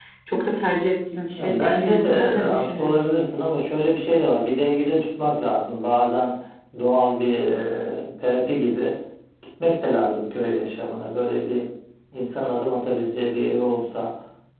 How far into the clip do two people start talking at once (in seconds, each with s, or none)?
1.4 s